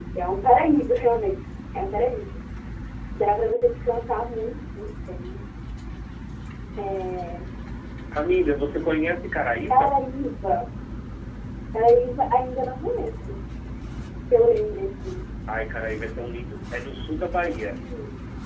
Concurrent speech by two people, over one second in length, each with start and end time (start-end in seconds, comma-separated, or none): none